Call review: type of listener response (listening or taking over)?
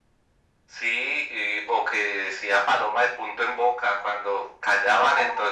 listening